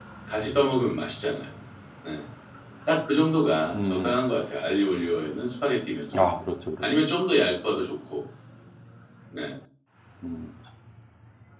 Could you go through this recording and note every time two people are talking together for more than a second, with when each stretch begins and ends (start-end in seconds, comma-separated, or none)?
none